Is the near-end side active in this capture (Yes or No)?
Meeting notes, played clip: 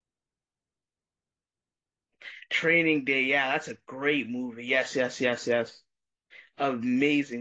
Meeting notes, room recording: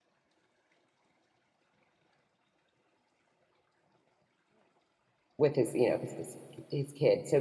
Yes